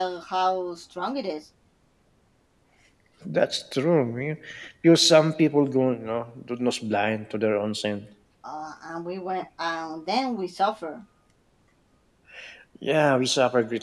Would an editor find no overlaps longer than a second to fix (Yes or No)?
Yes